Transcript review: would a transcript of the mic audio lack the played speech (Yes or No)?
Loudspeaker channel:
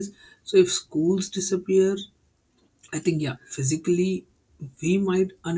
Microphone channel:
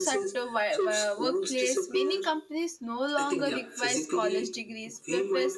No